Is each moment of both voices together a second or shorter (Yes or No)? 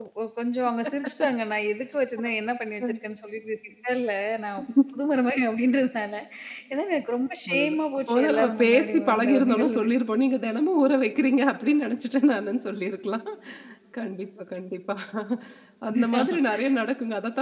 No